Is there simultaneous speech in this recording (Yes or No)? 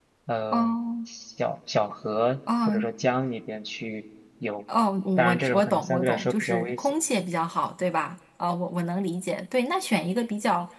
Yes